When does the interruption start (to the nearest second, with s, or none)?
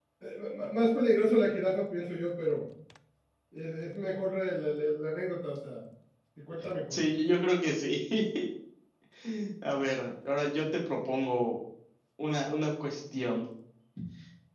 none